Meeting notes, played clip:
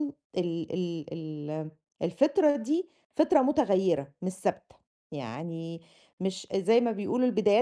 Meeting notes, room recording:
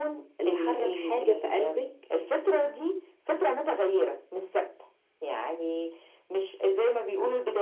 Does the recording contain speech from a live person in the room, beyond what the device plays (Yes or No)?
Yes